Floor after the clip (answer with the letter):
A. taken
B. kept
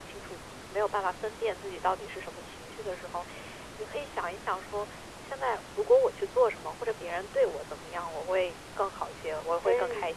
B